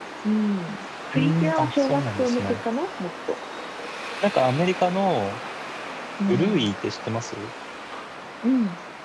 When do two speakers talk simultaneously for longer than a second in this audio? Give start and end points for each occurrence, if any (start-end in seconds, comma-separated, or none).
1.1-2.6